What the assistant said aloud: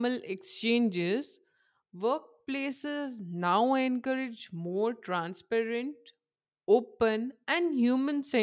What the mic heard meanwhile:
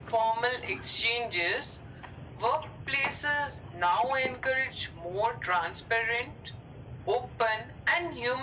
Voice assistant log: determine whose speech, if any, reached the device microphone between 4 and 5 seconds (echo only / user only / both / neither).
echo only